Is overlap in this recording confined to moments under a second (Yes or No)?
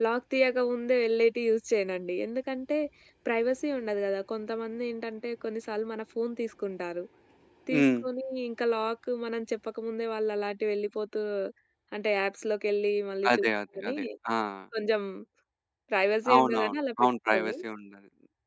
No